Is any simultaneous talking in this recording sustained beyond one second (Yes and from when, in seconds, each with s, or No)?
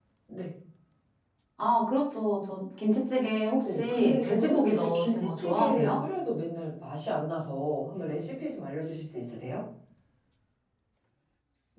Yes, from 3.6 s